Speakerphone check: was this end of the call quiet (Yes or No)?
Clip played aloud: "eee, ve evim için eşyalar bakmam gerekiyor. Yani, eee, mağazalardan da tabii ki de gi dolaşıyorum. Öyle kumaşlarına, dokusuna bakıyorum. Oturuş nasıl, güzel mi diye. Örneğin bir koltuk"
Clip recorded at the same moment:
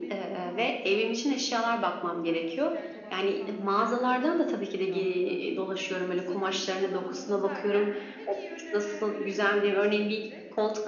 No